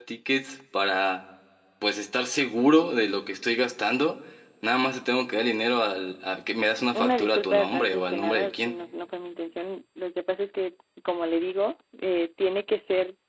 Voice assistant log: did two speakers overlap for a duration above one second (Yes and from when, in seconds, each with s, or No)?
Yes, from 7.0 s